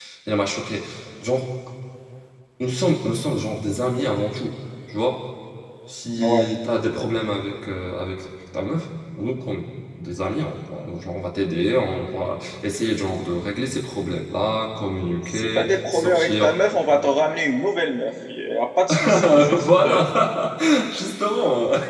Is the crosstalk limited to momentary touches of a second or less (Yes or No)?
No